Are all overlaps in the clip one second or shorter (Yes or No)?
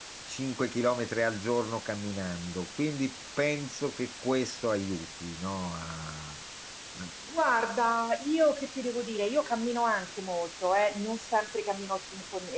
Yes